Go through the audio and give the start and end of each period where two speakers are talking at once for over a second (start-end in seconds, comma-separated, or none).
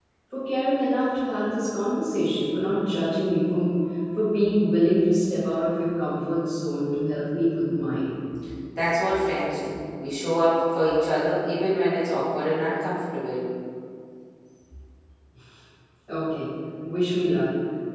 none